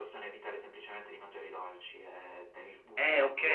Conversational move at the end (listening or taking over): taking over